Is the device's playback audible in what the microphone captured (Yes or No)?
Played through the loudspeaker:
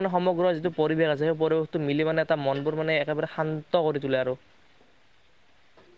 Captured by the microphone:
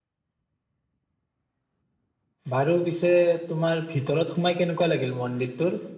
No